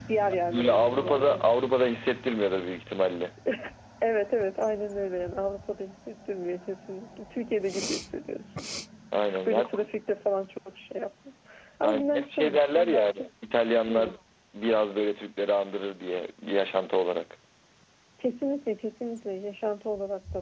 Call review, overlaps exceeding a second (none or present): present